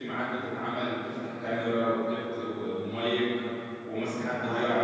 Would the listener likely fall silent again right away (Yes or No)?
Yes